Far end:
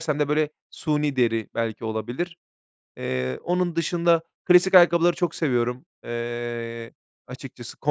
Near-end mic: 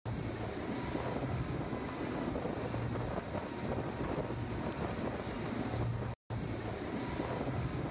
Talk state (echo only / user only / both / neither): neither